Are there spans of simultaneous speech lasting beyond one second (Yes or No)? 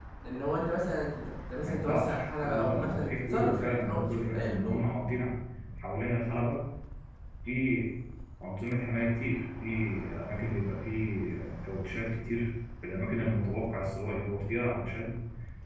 Yes